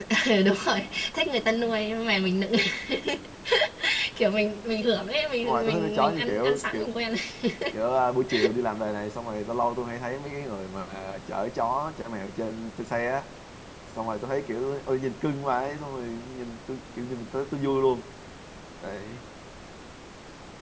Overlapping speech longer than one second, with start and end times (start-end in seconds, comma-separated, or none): 5.4-6.9